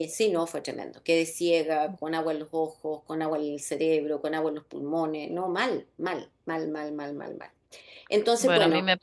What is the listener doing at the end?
taking over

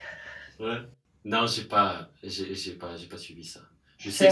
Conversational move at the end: listening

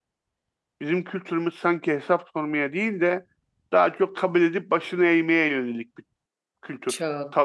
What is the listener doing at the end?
taking over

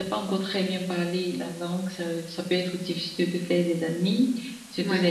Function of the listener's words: listening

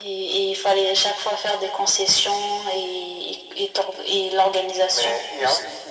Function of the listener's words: taking over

